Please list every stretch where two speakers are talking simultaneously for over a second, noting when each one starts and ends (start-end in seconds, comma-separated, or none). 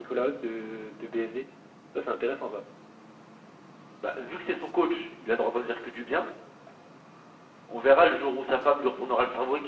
none